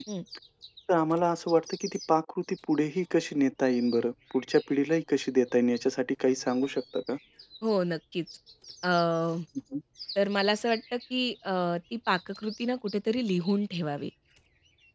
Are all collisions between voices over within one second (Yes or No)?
Yes